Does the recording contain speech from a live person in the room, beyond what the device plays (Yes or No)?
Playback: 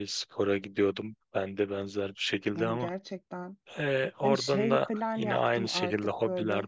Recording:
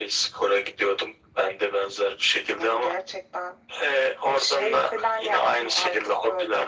No